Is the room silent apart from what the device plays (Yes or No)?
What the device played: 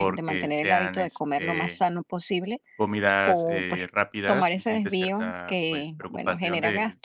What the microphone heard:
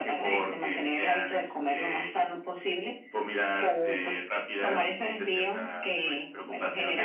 Yes